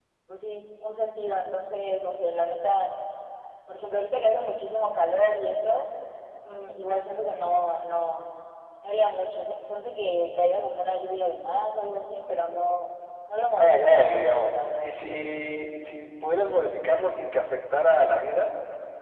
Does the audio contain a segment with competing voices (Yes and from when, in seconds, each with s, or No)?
Yes, from 13.6 s